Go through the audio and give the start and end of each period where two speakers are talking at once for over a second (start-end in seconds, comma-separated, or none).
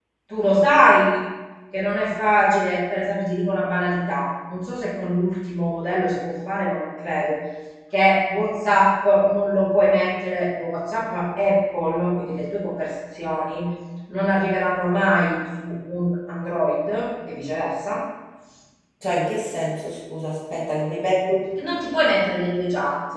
none